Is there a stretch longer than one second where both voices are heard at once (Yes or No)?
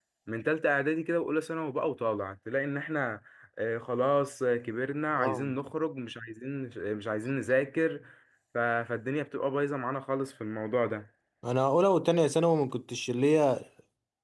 No